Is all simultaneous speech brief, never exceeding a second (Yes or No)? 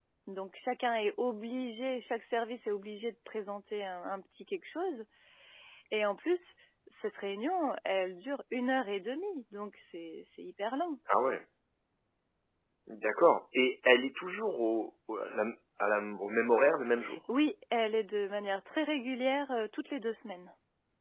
Yes